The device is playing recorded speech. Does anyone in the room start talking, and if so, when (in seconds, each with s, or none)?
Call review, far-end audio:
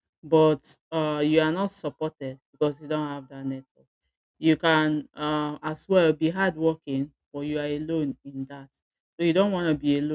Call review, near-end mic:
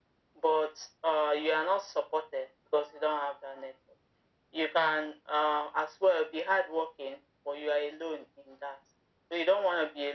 none